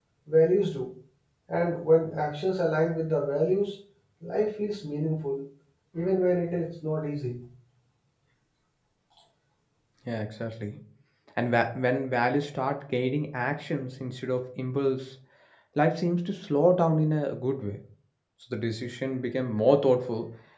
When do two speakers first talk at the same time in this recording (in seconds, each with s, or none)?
none